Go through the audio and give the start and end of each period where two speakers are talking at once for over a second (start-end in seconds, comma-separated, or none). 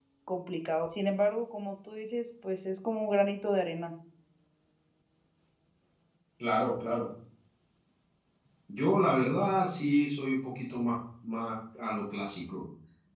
none